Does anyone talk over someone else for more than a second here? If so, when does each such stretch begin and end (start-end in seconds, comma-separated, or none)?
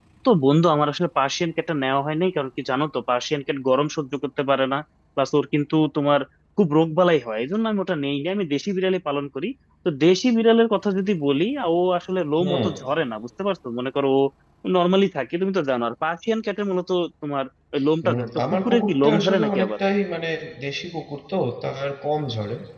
18.0-19.7